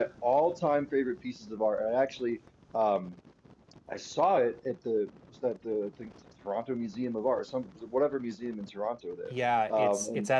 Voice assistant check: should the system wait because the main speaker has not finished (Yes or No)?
No